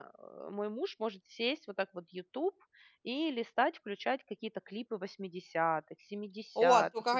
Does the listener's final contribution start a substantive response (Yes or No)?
Yes